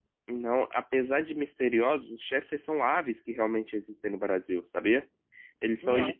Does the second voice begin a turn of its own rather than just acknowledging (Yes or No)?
No